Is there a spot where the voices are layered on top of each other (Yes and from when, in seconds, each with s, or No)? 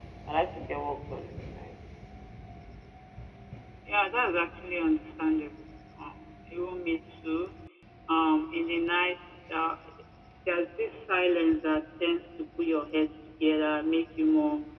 No